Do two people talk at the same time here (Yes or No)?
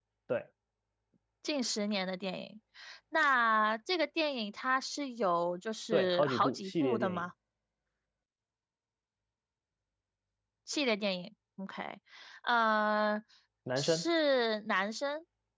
Yes